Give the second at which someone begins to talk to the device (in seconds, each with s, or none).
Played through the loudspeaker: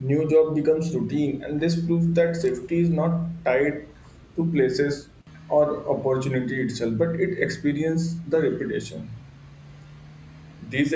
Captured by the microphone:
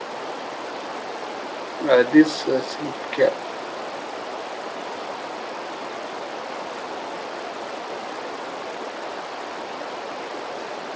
1.9 s